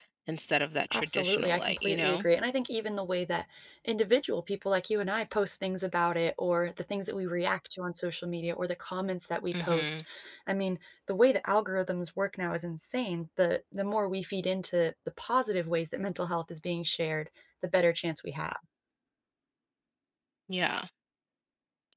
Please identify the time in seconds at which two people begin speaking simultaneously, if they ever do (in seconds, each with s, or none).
0.9 s